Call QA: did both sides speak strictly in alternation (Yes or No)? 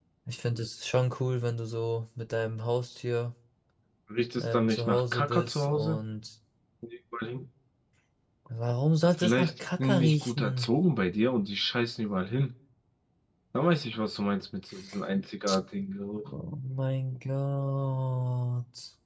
No